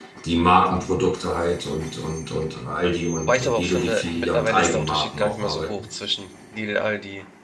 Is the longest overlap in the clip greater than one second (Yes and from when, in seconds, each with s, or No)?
Yes, from 3.1 s